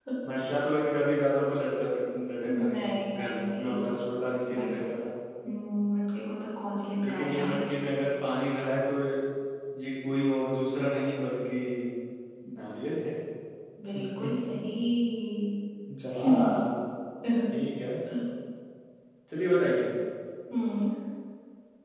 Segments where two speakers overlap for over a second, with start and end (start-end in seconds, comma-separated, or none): 2.5-3.8